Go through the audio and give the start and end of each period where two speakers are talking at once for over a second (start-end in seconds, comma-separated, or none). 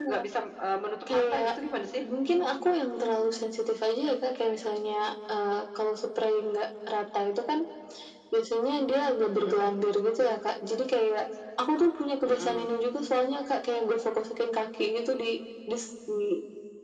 none